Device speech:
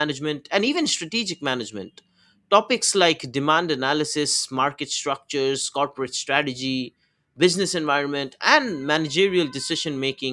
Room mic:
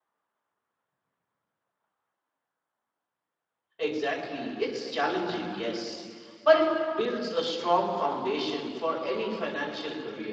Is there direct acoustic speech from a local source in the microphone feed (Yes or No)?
Yes